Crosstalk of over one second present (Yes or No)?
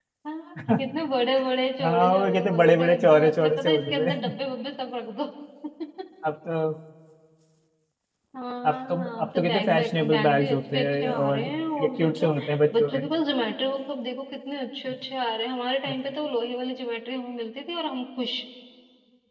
Yes